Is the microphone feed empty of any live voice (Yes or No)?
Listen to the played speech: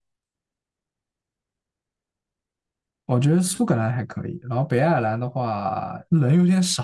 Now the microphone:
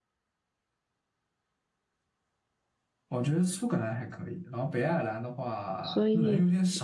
No